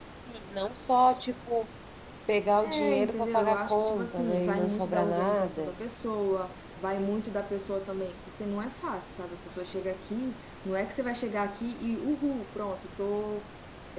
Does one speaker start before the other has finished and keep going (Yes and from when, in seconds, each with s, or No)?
Yes, from 2.6 s